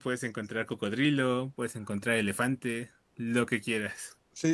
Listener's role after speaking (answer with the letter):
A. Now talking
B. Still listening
A